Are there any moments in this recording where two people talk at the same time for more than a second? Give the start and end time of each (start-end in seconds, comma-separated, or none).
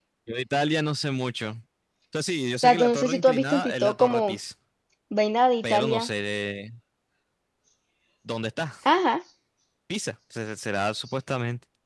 2.6-4.4